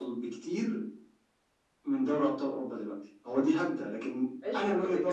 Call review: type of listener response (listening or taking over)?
taking over